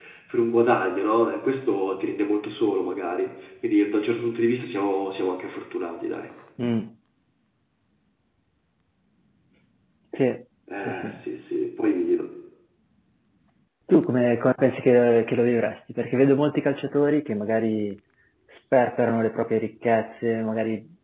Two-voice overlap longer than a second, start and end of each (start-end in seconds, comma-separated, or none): none